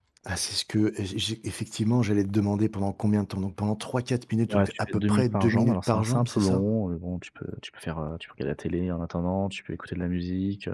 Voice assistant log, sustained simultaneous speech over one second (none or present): present